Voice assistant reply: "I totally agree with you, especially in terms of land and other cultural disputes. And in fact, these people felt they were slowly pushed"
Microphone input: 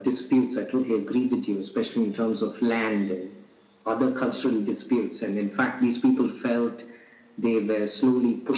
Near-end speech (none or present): none